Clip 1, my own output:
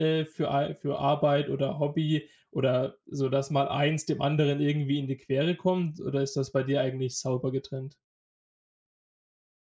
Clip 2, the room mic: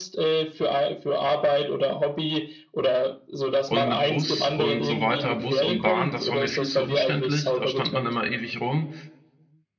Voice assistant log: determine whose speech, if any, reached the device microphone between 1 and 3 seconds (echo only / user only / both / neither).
echo only